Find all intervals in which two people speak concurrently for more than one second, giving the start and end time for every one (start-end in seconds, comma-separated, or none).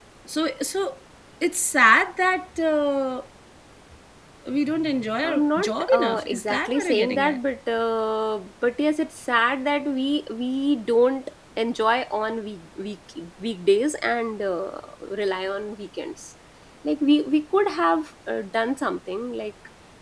5.3-7.4